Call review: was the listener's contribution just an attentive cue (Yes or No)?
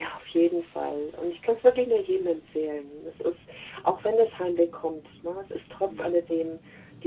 Yes